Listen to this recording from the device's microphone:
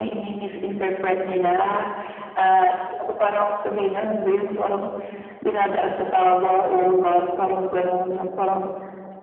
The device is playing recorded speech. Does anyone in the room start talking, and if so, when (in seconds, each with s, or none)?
none